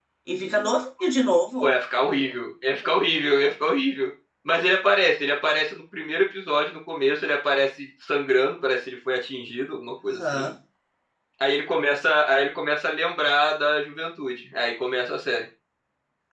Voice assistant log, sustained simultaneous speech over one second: none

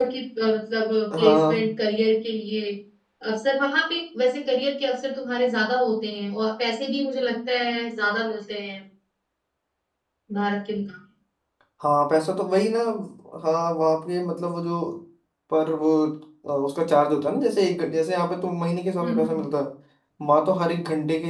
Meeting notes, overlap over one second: none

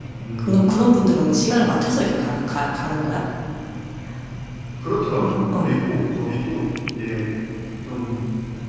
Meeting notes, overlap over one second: none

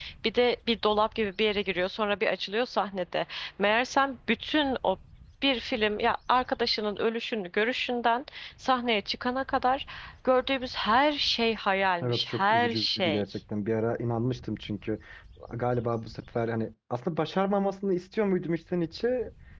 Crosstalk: present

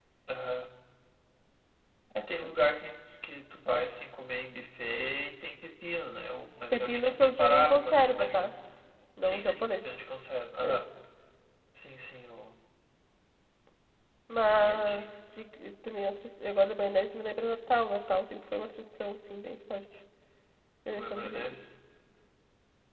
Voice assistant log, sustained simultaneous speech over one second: present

